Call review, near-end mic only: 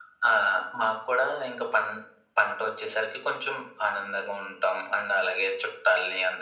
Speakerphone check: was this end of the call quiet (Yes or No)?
Yes